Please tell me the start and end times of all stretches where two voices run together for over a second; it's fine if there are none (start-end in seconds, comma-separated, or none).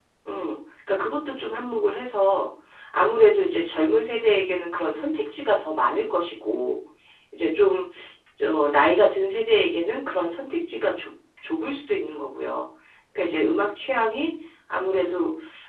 none